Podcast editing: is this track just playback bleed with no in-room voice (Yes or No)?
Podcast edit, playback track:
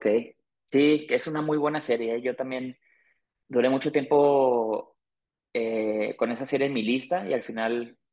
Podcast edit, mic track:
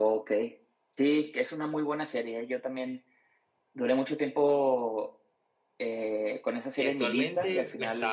No